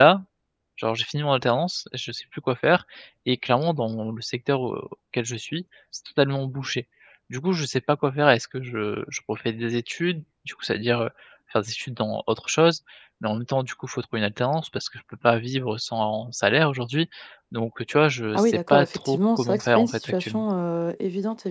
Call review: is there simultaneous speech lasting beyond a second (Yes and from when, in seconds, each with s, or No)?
Yes, from 18.3 s